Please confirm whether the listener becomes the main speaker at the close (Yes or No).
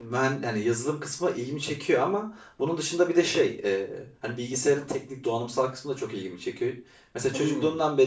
No